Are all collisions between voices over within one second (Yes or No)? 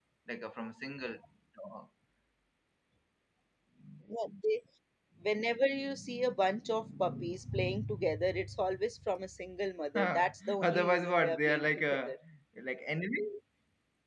No